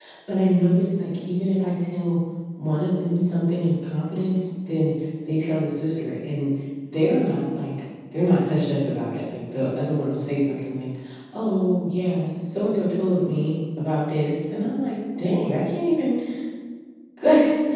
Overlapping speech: No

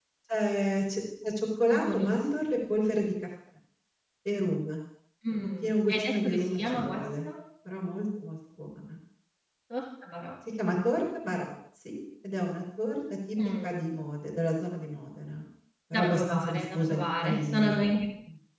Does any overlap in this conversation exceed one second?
Yes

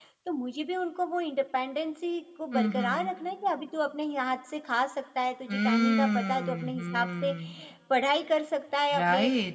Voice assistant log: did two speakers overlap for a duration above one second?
Yes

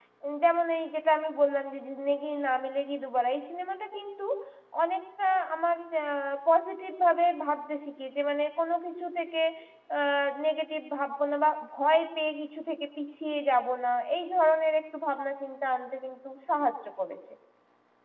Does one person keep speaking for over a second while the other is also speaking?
No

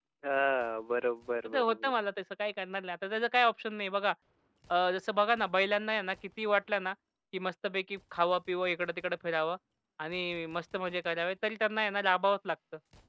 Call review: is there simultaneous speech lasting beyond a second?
No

